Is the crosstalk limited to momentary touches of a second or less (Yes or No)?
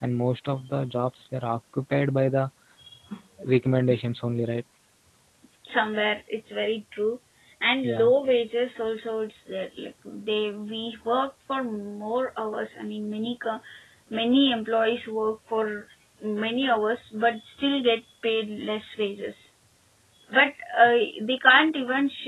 Yes